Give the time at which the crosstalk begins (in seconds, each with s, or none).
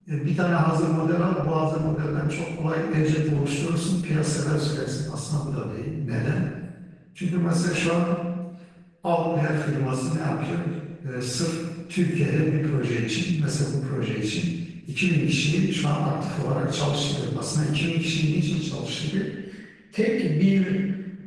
none